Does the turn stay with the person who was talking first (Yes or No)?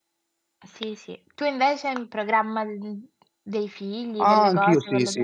No